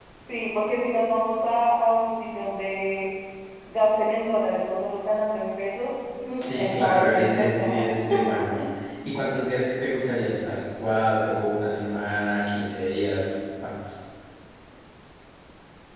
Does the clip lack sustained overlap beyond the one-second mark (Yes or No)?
No